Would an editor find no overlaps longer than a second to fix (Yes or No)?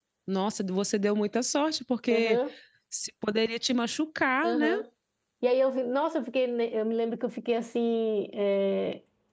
Yes